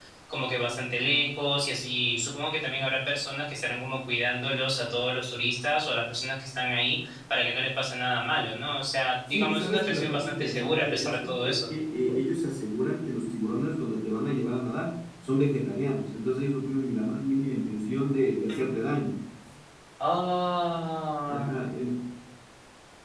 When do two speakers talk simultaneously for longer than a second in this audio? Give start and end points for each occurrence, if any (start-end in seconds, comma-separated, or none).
9.3-11.7